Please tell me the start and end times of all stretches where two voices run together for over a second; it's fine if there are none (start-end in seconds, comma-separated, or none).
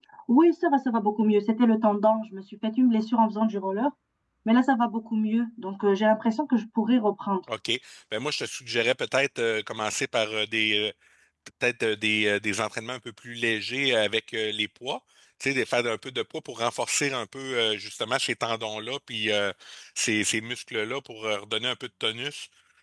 none